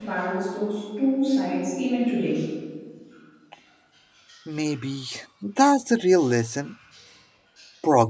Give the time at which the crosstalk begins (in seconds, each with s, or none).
none